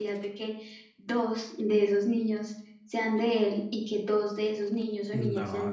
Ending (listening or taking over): taking over